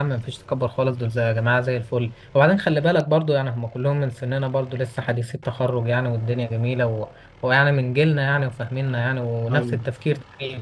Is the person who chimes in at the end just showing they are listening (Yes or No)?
Yes